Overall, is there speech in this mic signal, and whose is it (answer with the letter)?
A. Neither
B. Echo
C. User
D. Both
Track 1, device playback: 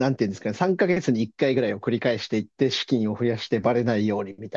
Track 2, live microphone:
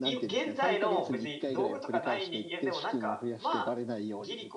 D